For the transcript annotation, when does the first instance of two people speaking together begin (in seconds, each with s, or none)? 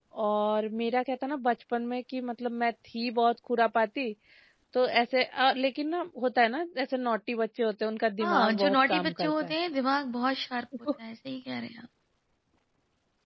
8.2 s